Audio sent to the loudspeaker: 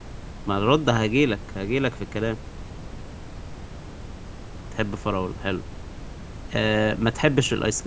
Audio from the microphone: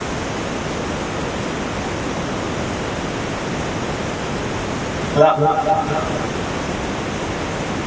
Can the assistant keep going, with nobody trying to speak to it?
No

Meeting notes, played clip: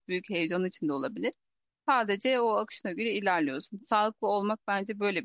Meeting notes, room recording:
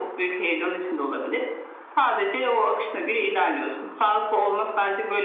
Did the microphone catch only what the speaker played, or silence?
Yes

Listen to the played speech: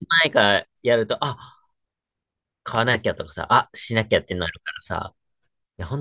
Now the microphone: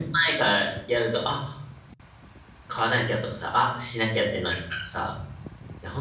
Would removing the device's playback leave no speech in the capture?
Yes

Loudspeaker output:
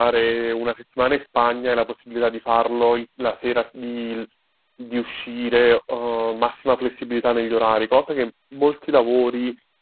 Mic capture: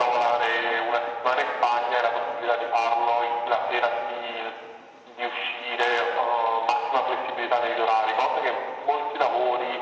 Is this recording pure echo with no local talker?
Yes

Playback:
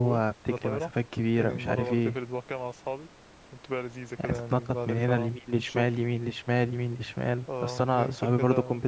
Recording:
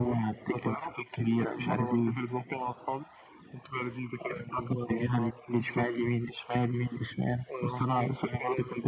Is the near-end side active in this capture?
No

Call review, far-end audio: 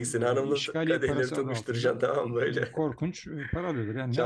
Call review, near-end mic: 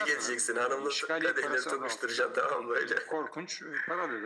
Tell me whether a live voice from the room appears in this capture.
No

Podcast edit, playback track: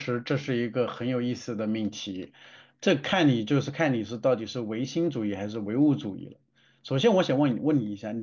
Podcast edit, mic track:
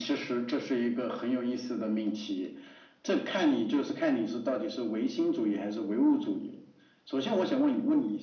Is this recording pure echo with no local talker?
Yes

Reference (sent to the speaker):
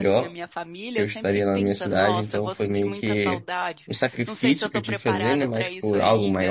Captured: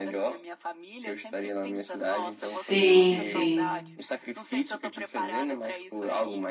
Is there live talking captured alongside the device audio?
Yes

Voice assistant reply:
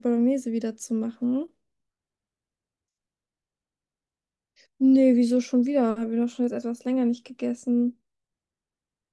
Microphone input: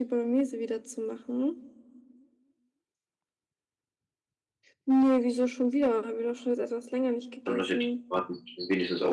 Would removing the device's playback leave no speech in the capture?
No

